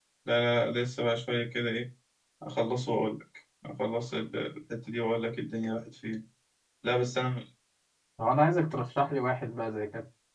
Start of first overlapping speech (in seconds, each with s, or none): none